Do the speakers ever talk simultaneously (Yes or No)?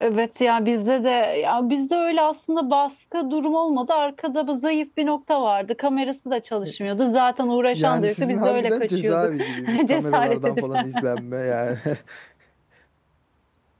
Yes